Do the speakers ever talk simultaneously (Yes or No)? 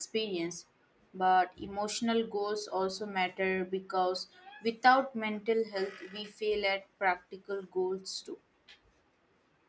No